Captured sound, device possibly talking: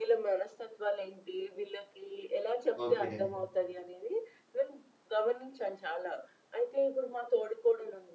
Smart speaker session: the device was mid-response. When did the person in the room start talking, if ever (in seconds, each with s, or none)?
2.8 s